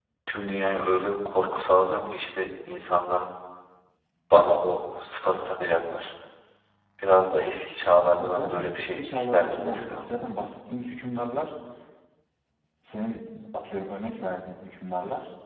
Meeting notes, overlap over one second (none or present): present